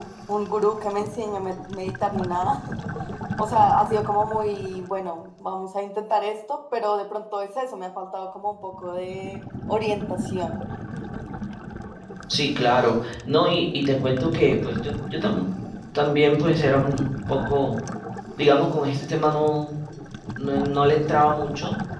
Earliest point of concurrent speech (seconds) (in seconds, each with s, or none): none